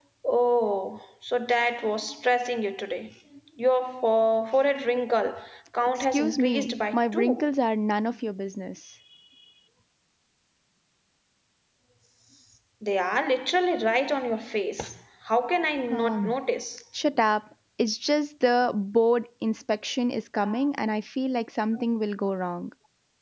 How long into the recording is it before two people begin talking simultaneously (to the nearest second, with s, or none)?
6 s